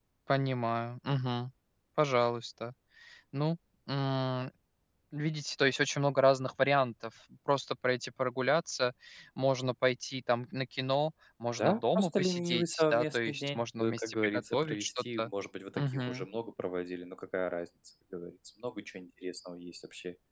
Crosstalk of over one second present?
Yes, from 11.6 s

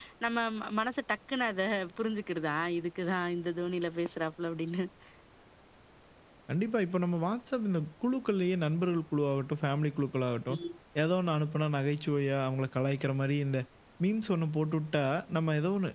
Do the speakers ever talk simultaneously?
No

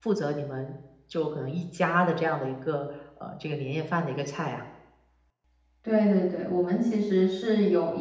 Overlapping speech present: No

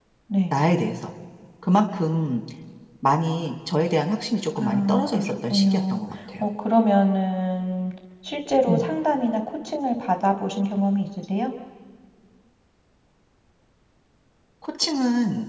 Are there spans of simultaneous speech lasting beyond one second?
Yes, from 4.6 s

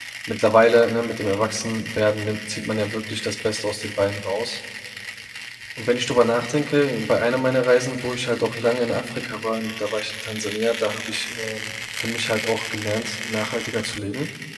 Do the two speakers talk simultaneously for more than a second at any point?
No

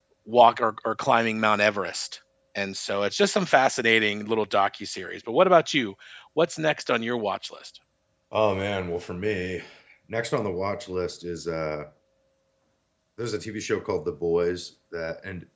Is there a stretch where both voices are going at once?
No

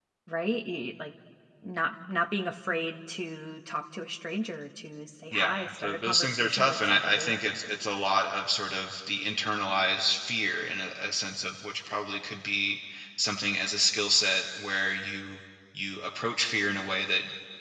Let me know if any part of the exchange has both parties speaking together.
Yes, from 5.3 s

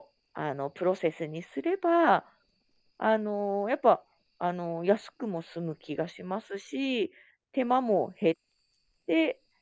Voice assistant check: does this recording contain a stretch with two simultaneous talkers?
No

